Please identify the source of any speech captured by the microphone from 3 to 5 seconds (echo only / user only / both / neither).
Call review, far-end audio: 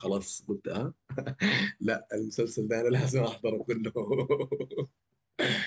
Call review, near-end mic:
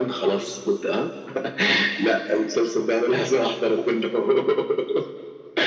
echo only